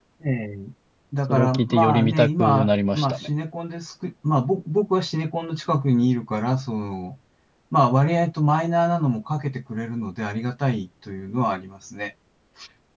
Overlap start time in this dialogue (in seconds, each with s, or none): 1.3 s